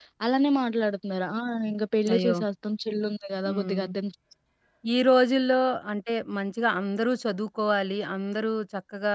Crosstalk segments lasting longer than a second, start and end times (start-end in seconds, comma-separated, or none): none